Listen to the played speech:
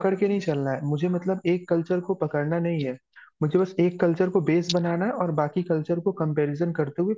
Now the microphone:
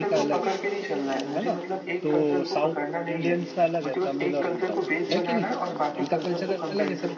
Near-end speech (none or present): present